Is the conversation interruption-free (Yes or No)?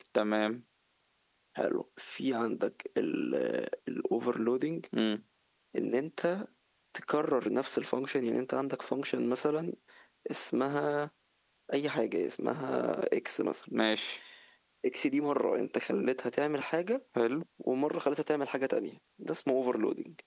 Yes